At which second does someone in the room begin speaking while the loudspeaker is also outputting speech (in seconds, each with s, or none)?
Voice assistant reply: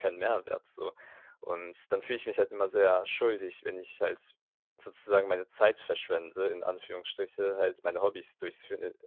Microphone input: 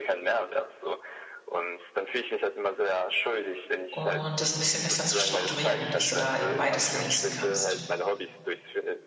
3.9 s